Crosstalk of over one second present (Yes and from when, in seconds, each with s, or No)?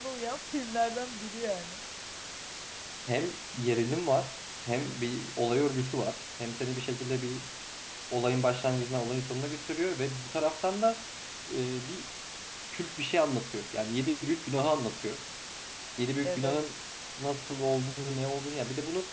No